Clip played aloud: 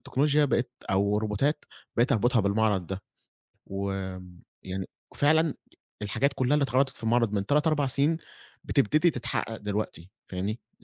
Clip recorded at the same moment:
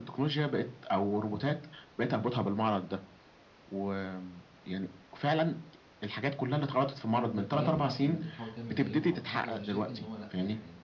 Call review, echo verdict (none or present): present